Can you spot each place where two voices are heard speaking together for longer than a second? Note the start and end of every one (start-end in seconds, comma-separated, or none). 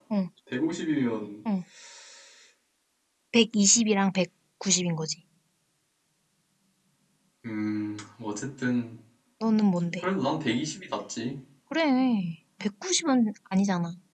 none